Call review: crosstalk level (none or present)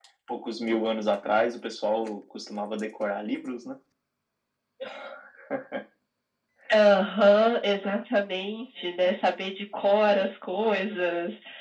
none